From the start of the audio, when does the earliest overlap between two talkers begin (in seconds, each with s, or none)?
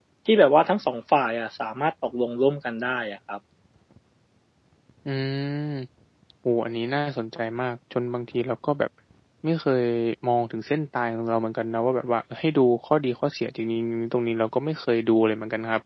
none